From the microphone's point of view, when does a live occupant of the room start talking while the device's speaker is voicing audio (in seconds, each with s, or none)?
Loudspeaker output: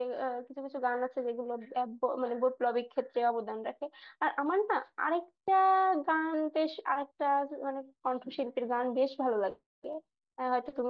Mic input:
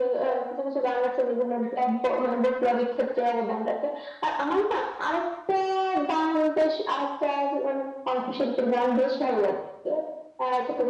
none